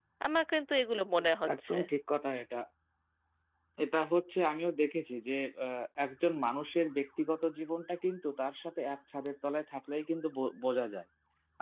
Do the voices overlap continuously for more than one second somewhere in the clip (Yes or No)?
No